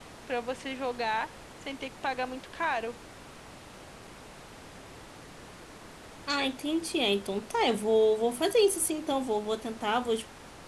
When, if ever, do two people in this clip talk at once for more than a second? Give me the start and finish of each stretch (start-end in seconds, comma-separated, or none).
none